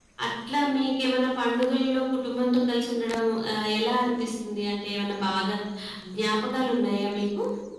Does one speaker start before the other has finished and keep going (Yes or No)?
No